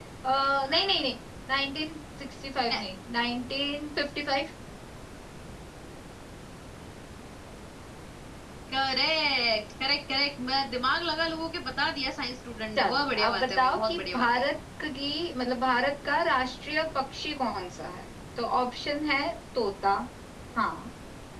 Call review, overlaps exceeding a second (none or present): present